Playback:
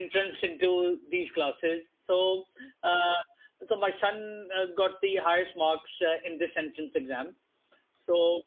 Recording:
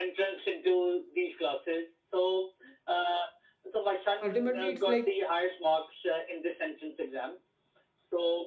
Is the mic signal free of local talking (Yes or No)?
No